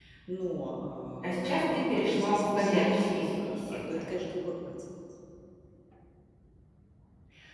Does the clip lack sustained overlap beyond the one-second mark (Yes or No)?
No